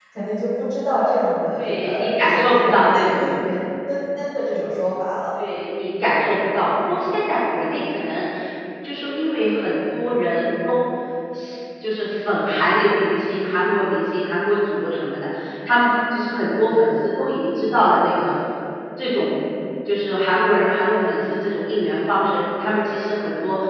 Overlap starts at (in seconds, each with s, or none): 1.6 s